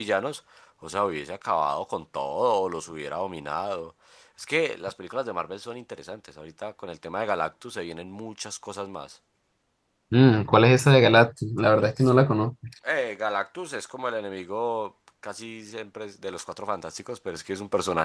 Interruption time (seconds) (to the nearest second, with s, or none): none